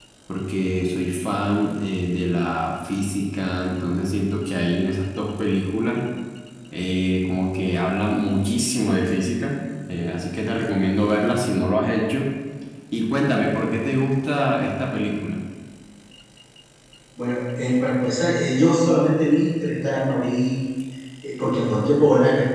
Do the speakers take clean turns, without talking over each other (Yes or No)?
Yes